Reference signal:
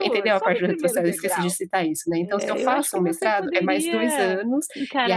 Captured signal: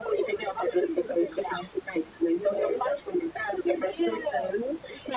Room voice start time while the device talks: none

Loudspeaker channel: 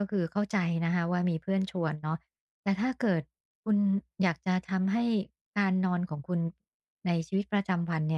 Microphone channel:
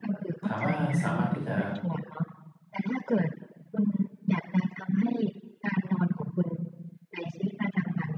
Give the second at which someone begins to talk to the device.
0 s

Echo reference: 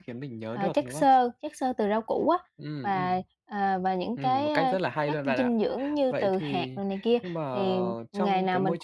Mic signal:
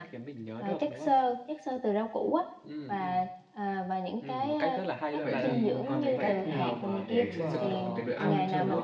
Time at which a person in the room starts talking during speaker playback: 5 s

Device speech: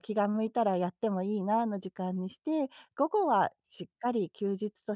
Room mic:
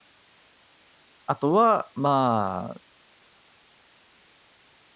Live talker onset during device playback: 1 s

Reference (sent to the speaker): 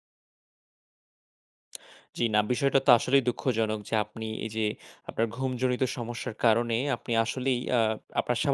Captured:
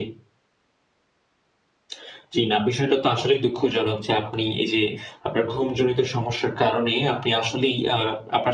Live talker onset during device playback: none

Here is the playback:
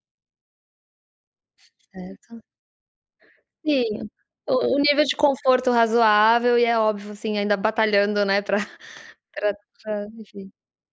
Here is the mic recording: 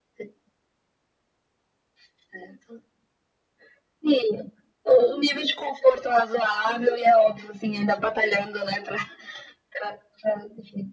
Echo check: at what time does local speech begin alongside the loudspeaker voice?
none

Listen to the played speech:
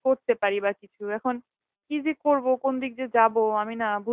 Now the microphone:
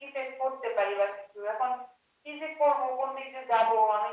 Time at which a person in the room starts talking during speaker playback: none

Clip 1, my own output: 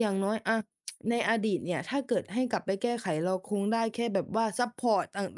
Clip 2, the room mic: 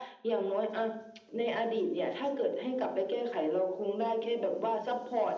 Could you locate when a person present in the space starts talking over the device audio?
none

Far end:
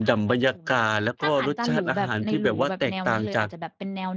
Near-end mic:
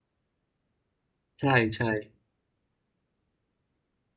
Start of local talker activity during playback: 1 s

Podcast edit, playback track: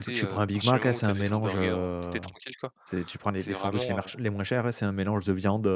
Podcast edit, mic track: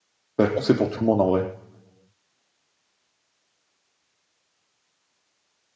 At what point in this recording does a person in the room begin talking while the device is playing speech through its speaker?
0 s

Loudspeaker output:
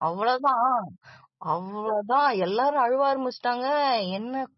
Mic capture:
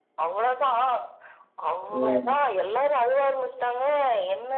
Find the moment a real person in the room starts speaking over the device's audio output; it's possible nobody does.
2 s

